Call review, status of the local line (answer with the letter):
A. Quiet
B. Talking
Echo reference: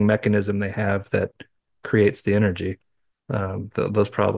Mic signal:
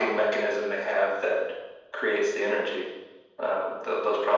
A